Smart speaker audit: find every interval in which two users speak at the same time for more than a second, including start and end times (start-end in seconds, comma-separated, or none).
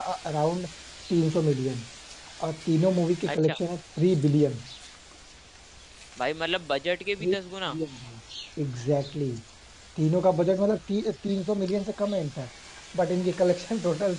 none